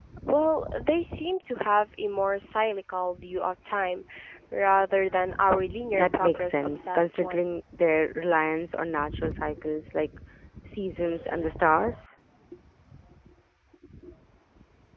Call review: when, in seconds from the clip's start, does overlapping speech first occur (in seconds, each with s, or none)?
5.9 s